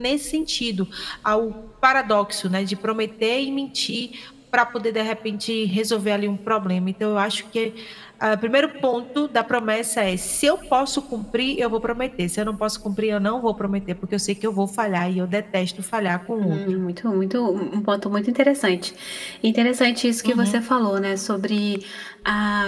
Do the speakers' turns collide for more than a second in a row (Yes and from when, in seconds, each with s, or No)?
No